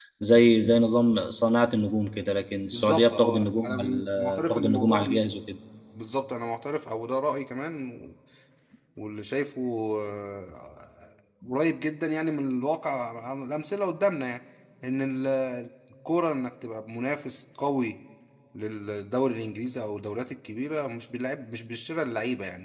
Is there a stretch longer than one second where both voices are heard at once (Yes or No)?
Yes